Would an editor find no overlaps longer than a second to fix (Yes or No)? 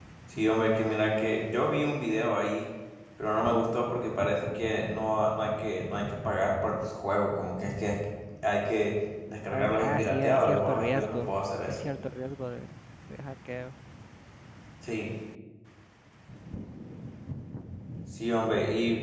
No